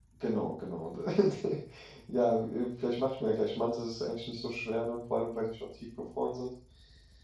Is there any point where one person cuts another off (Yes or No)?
No